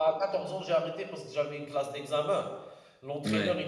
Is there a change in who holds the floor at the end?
No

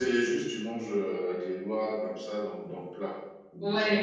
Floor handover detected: Yes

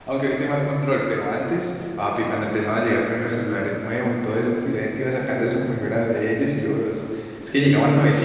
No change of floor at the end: Yes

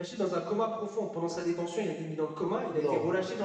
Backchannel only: Yes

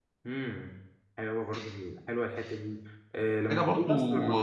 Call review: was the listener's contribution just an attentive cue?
Yes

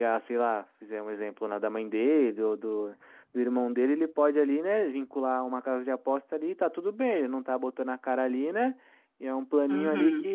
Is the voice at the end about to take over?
No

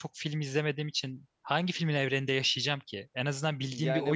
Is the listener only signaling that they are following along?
No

